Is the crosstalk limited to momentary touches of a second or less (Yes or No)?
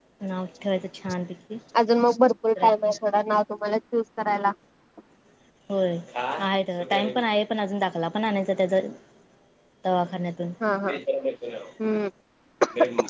Yes